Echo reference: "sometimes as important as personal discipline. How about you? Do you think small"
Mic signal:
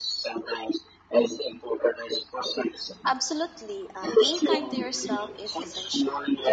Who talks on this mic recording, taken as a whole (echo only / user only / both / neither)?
both